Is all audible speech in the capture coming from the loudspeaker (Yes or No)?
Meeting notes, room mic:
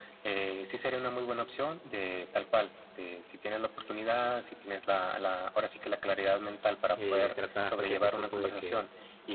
No